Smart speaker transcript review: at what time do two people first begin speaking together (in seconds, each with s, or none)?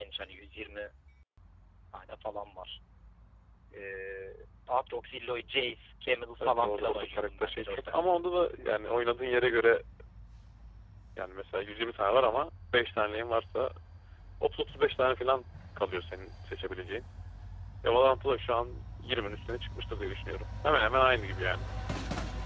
6.4 s